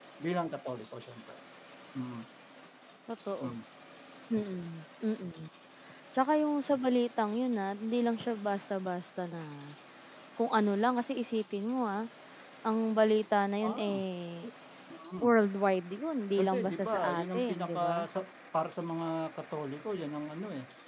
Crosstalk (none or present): present